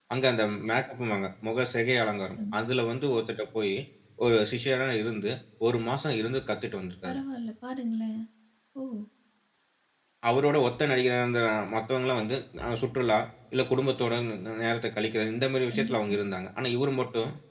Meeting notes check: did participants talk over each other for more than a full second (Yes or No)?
No